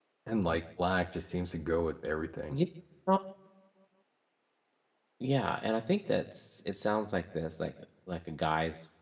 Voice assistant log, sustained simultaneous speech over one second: none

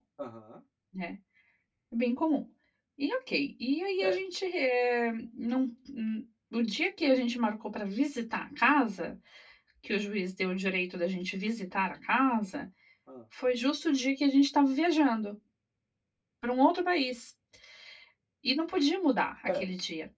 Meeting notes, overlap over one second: none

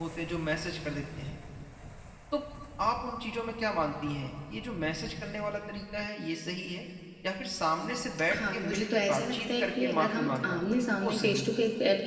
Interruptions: present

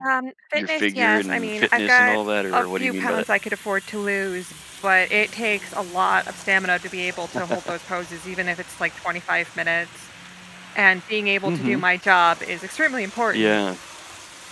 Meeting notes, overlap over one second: present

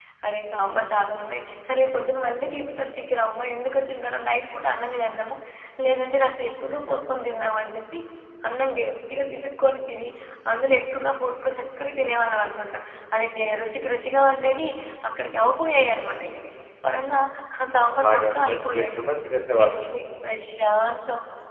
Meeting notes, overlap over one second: present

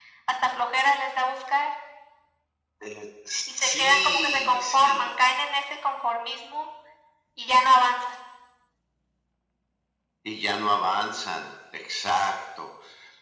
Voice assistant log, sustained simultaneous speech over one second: present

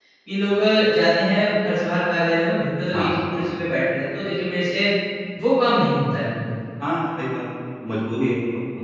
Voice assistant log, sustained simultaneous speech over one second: none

